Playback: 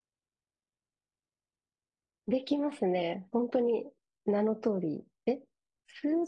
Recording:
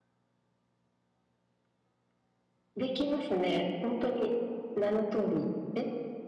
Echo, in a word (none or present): present